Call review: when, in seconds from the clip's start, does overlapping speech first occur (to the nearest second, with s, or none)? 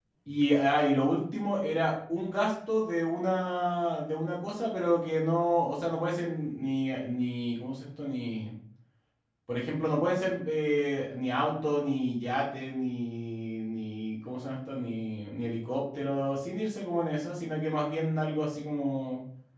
none